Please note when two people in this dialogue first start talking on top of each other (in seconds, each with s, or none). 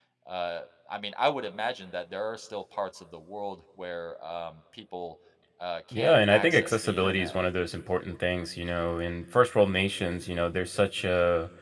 5.9 s